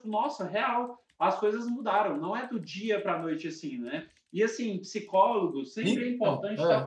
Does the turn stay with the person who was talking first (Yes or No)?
Yes